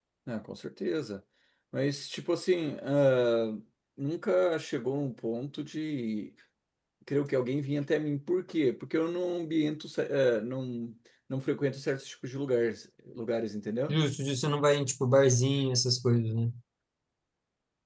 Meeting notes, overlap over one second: none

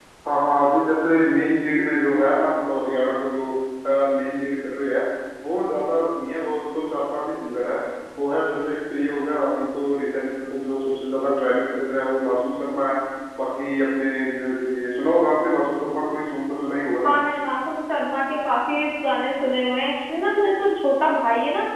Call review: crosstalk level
none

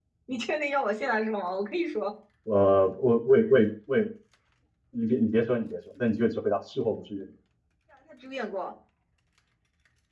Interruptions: none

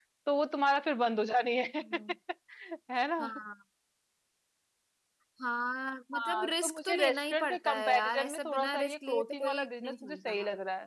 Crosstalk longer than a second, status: present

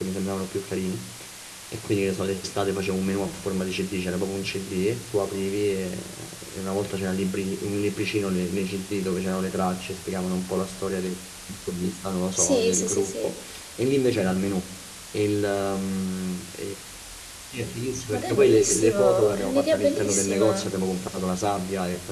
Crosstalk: present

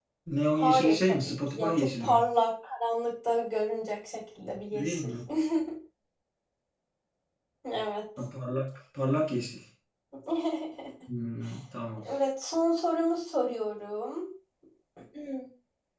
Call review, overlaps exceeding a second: present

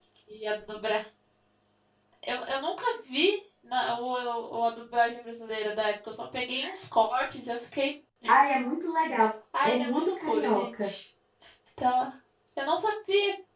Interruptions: present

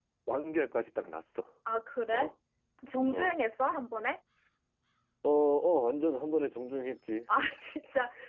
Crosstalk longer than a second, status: none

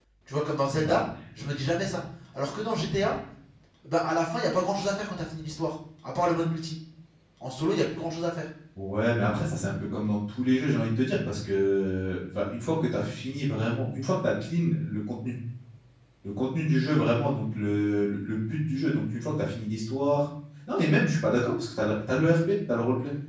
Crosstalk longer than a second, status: none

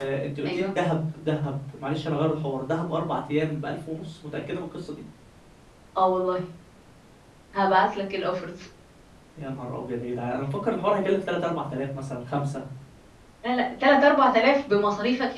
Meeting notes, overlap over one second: none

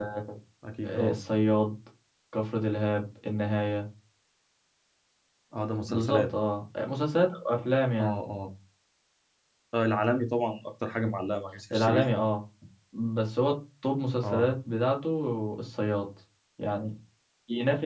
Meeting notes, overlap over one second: none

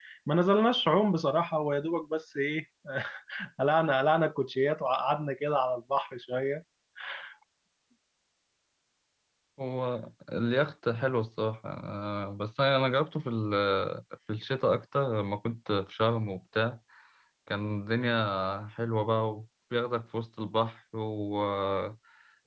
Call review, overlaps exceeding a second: none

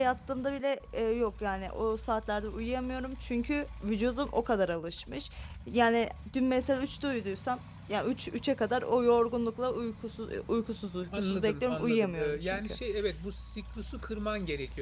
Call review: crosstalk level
present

